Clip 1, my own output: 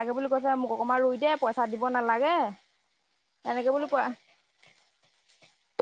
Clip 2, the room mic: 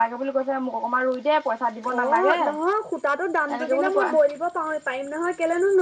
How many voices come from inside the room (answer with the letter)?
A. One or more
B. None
A